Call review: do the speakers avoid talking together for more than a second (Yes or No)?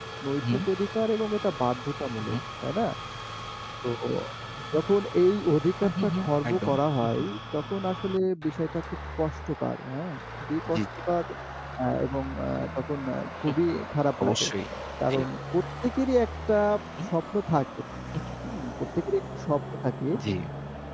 No